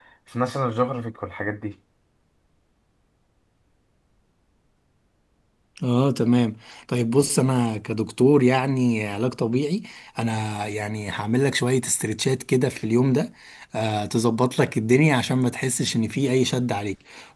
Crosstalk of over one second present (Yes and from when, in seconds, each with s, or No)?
No